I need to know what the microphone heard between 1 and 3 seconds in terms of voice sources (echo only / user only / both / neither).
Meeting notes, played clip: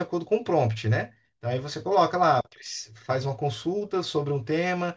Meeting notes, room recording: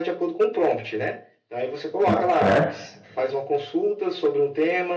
both